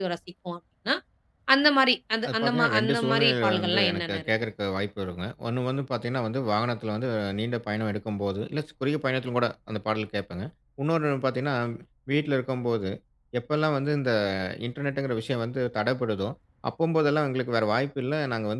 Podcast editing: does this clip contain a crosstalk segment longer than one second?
Yes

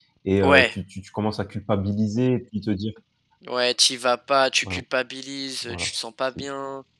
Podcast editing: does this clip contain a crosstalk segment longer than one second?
No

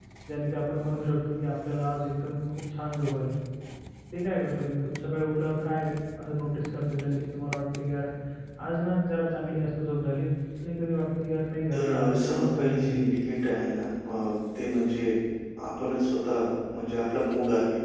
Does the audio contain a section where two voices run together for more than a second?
Yes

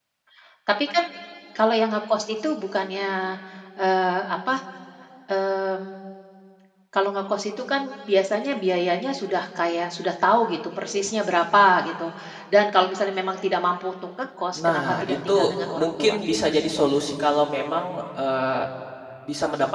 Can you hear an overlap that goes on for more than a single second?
Yes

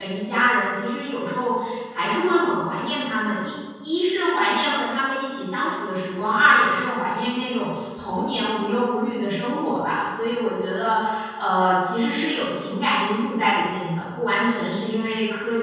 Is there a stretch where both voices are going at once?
No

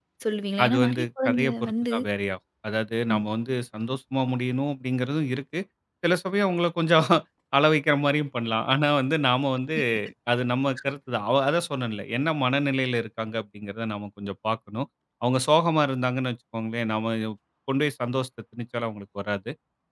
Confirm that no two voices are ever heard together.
No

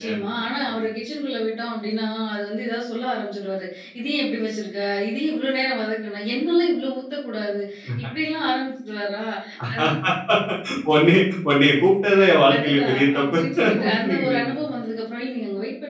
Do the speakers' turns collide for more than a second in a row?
Yes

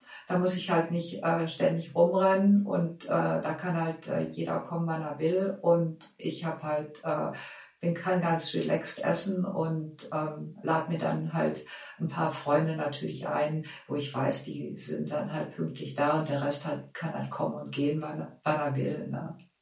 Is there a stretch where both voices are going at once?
No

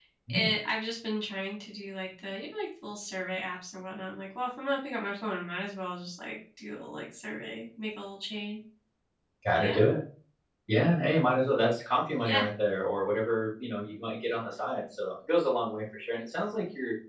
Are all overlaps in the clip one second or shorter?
Yes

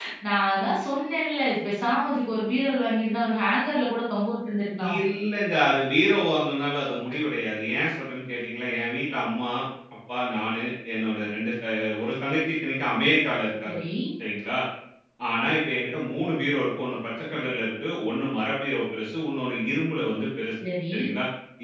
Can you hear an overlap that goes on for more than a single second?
No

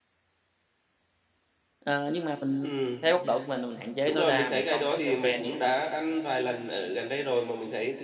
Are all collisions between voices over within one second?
No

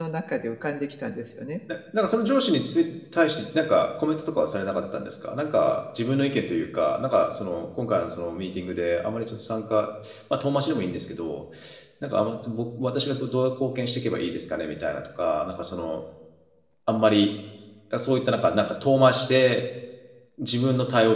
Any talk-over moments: No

